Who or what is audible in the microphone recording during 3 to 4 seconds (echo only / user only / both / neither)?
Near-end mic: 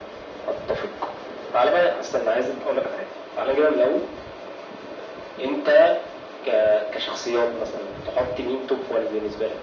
echo only